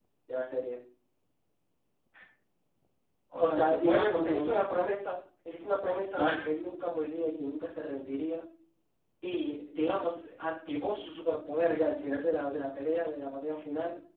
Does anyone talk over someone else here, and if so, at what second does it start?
3.4 s

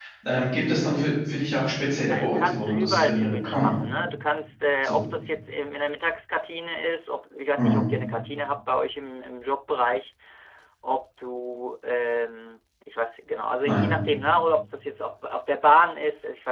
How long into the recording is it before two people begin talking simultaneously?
2.1 s

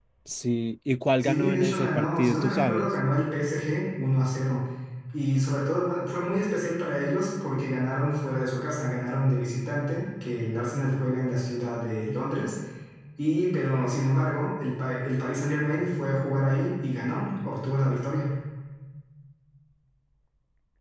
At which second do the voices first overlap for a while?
1.2 s

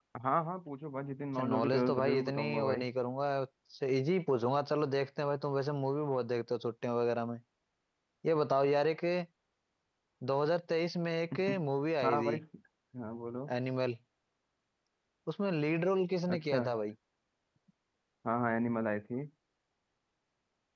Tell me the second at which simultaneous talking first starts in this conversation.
1.4 s

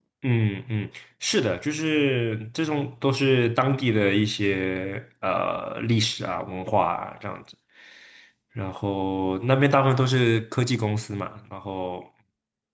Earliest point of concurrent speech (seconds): none

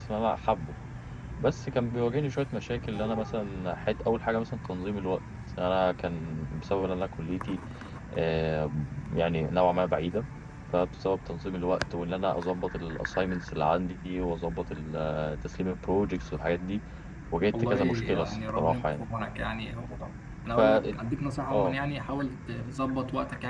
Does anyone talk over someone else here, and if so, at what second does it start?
17.5 s

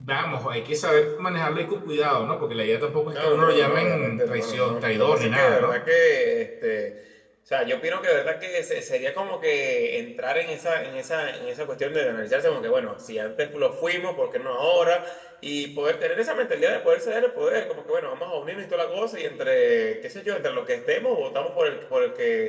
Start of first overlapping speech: 3.1 s

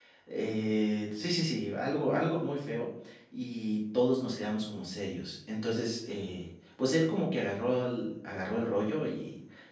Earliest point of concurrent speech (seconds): none

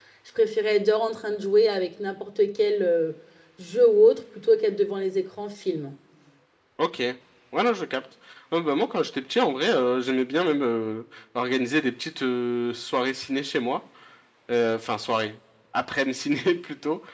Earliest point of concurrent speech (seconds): none

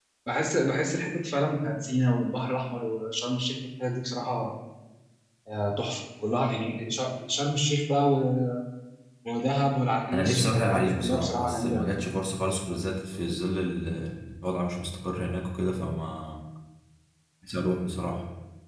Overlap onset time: 10.1 s

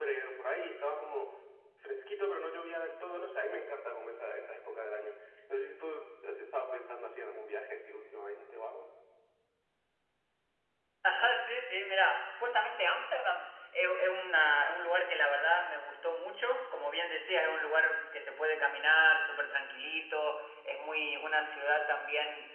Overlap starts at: none

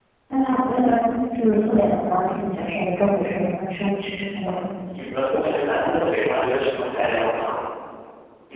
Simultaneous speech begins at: none

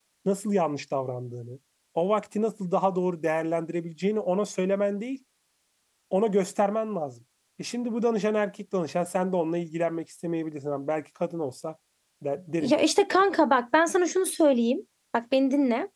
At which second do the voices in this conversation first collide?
none

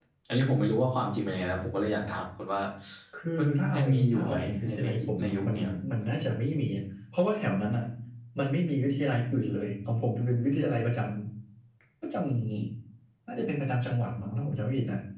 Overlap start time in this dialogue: 3.4 s

